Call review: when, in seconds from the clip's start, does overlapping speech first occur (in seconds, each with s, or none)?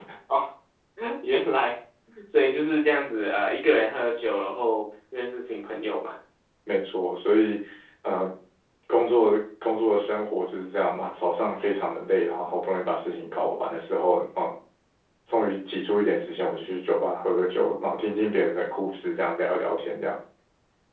none